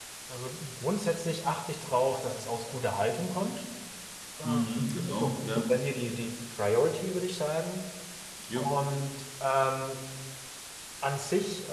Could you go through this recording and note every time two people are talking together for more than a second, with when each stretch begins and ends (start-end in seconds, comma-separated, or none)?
4.4-5.7